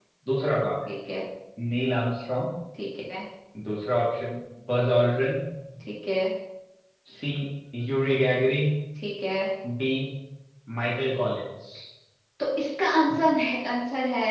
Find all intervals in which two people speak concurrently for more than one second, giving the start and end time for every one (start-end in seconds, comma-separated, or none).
none